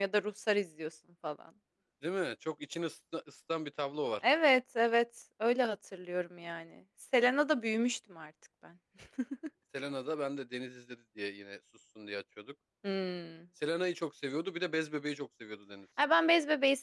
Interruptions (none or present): none